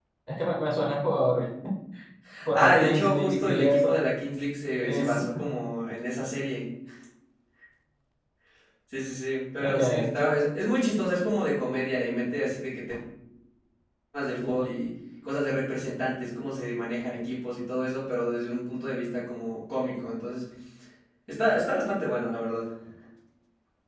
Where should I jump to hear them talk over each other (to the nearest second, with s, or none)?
3 s